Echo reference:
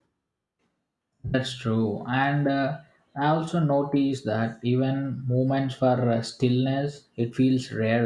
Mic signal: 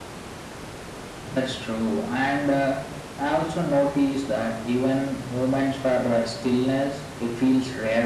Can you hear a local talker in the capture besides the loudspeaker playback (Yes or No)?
No